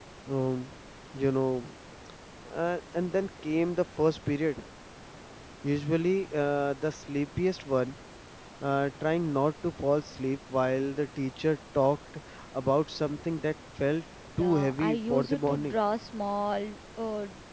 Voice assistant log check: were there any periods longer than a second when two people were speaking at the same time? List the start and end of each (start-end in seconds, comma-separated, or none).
14.4-15.8